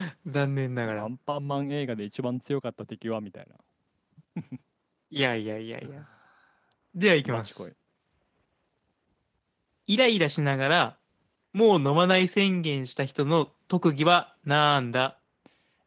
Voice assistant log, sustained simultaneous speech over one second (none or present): none